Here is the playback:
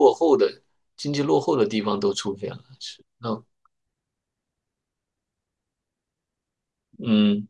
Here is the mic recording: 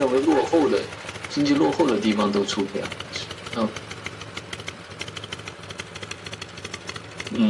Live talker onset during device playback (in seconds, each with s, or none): none